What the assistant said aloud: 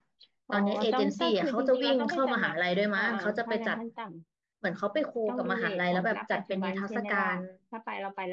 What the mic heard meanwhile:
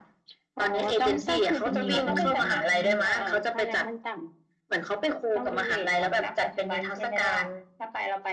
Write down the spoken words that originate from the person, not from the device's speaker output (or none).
อืมอืมอืม